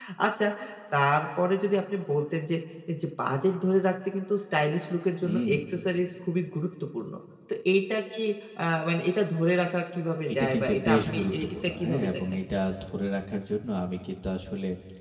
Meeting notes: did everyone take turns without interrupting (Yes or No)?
No